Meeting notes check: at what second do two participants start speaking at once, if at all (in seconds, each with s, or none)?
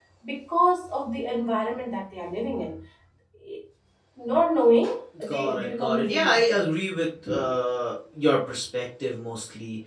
5.2 s